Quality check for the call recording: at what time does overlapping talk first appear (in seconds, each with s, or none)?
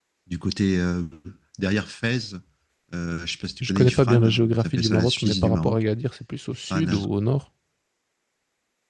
3.6 s